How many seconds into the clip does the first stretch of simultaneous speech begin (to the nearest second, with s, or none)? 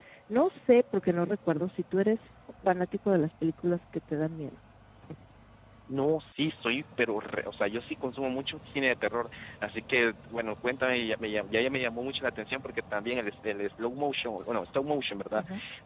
none